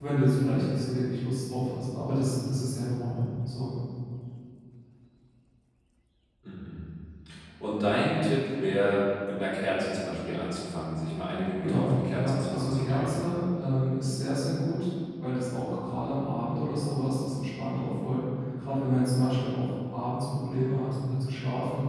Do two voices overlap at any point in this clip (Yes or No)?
Yes